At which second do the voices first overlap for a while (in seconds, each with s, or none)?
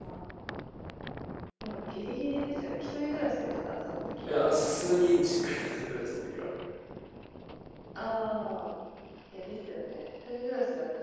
none